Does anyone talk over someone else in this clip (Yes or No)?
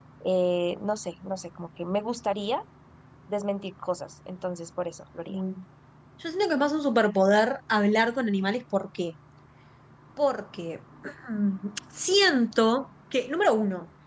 No